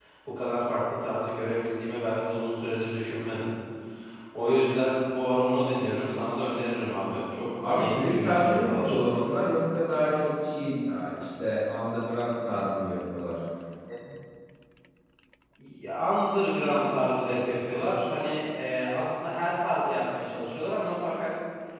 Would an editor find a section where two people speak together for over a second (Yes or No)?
Yes